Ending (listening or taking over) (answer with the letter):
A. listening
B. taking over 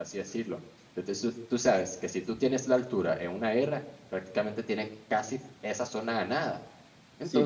B